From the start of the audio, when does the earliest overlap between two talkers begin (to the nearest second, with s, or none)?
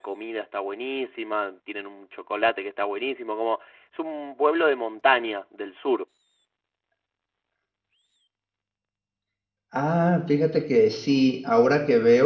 none